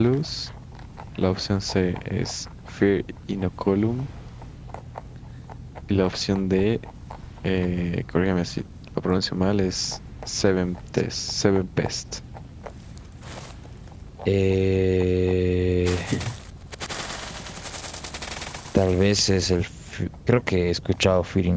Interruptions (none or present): none